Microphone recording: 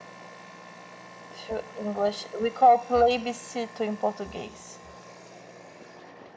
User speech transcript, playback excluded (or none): to English. We call plebiscito in Portuguese.